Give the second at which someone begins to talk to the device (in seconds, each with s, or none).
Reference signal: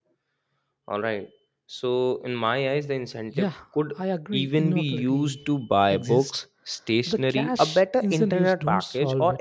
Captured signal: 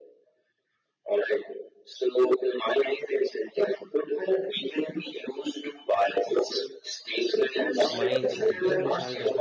7.9 s